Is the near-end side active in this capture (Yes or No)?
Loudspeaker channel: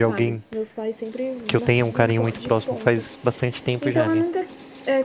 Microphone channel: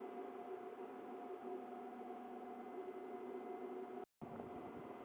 No